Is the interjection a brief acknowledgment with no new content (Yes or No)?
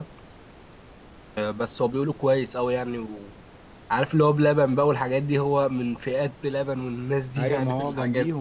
No